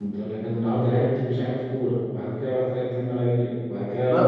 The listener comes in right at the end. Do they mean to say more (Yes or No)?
Yes